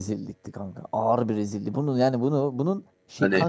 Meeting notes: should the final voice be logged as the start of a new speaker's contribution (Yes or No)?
No